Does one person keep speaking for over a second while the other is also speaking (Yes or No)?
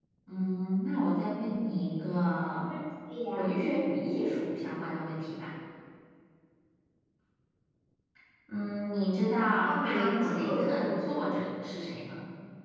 Yes